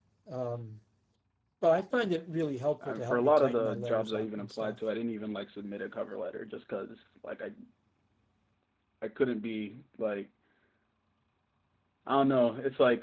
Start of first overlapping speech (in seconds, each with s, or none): 2.8 s